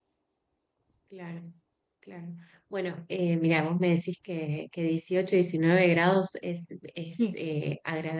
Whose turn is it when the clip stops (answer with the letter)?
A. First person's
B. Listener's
A